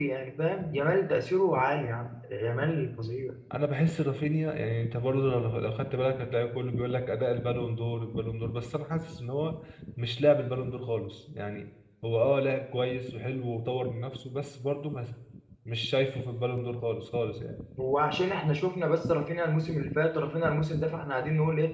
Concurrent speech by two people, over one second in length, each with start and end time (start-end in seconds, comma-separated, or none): none